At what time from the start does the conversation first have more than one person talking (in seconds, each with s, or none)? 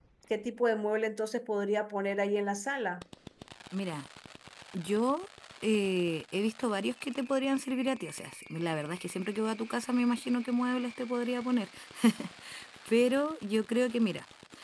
none